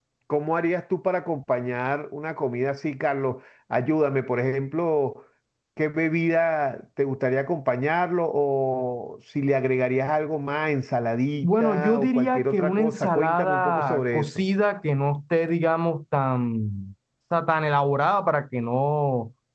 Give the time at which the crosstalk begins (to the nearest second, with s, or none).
11 s